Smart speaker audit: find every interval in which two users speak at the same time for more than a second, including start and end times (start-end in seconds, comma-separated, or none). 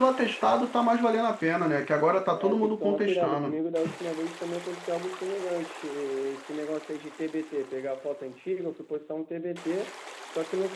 2.3-3.6